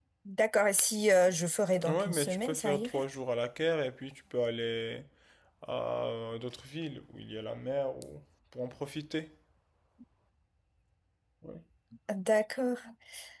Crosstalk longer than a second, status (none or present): present